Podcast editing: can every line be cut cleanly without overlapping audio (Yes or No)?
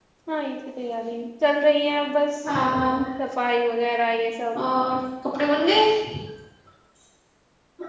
Yes